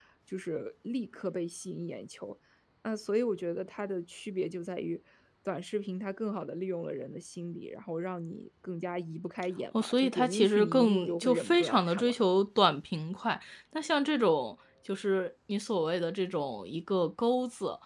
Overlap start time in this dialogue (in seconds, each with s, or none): 9.7 s